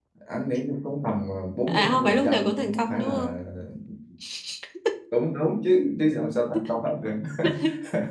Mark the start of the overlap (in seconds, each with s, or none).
1.7 s